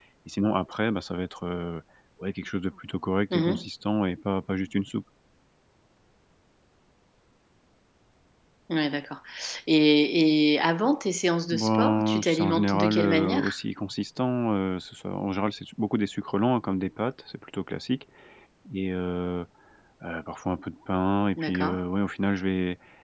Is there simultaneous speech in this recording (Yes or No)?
Yes